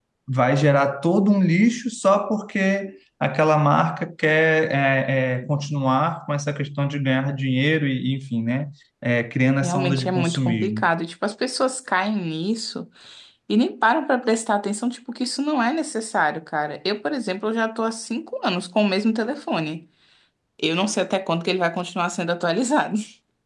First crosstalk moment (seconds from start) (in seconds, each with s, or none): 9.6 s